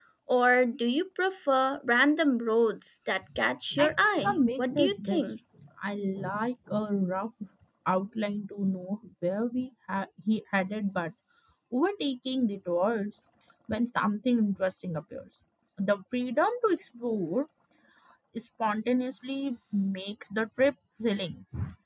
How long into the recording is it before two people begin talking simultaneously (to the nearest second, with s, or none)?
4 s